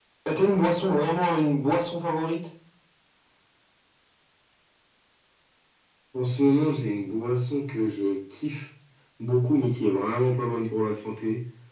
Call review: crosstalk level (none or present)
none